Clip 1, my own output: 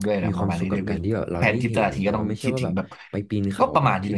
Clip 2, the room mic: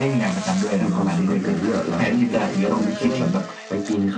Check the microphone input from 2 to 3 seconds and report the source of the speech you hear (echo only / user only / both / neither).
echo only